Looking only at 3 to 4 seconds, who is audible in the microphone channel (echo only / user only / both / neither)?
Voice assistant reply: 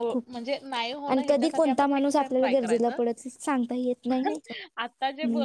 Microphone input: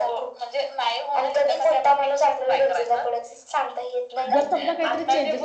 echo only